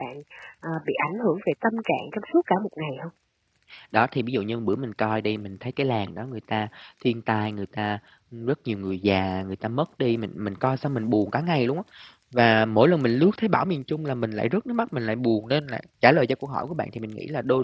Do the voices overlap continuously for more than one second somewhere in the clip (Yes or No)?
No